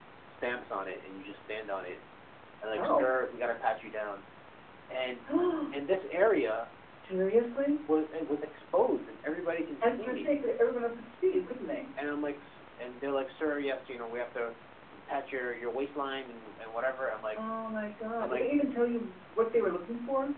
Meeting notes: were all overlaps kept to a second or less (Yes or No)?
Yes